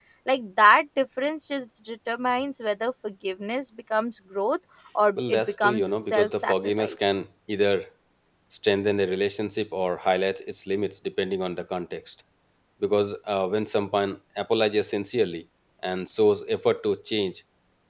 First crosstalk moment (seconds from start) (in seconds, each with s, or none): 5.2 s